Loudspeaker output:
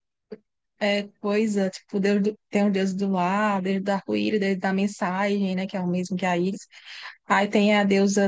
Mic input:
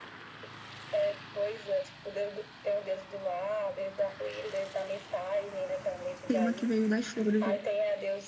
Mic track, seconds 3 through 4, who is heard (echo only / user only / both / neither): echo only